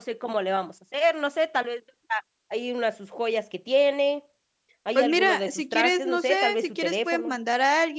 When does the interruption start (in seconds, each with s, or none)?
5.0 s